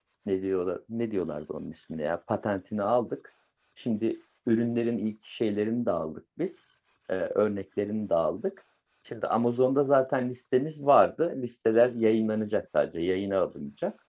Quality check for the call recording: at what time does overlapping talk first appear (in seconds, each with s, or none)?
none